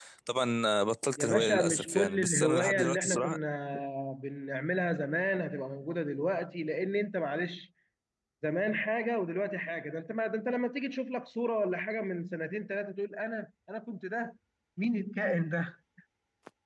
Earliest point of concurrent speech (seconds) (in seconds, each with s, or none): 1.2 s